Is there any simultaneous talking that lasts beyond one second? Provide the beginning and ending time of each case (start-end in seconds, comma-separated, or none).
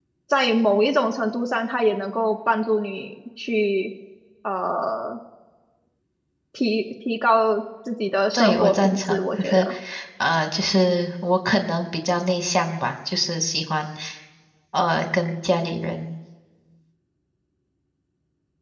8.3-9.7